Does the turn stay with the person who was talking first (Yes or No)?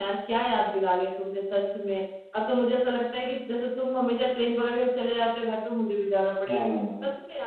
Yes